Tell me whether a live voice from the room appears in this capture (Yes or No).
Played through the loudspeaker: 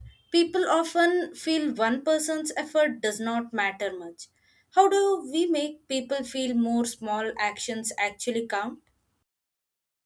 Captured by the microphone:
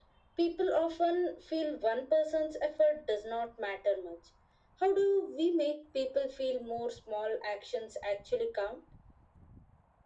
No